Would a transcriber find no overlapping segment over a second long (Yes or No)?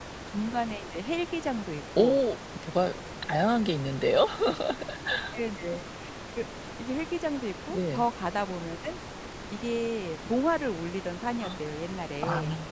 Yes